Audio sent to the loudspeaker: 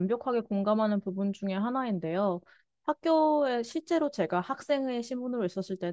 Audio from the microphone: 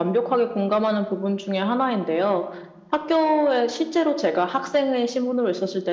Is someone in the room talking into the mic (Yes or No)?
No